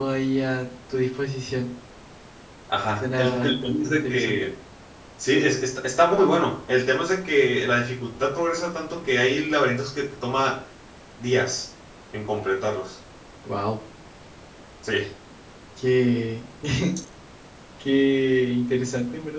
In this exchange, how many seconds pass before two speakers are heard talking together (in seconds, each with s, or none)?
3.0 s